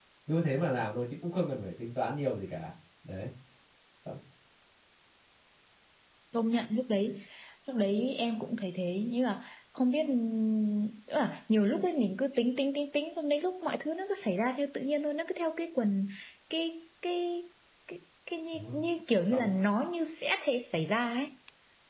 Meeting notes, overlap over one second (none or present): none